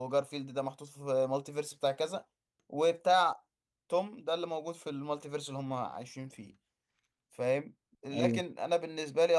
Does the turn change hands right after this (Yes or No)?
No